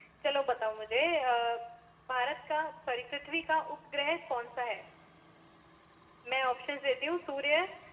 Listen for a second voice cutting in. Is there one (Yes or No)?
No